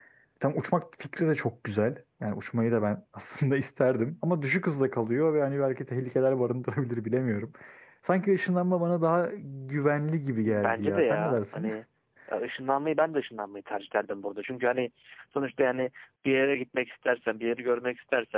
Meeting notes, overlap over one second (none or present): present